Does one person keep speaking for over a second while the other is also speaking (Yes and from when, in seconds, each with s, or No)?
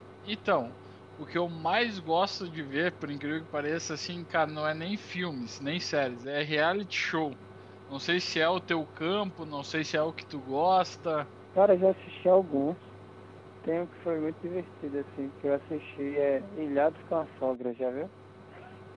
No